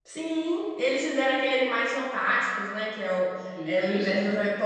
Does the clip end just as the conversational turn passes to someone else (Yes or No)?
No